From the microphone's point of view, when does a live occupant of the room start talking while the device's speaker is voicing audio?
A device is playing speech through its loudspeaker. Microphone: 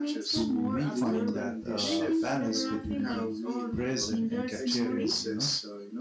0.3 s

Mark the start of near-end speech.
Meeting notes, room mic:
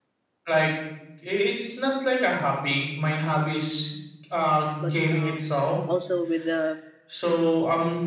4.8 s

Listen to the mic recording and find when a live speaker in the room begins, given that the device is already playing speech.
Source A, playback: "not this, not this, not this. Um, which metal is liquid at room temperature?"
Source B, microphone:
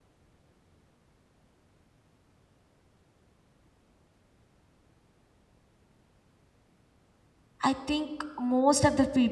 7.6 s

